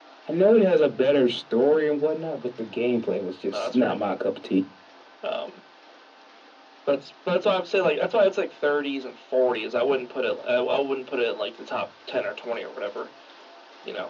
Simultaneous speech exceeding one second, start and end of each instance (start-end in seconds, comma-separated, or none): none